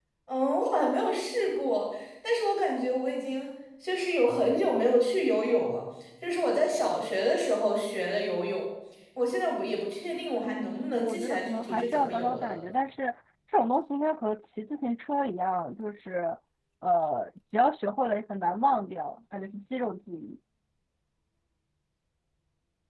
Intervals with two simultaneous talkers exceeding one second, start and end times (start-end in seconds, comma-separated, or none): 10.4-12.6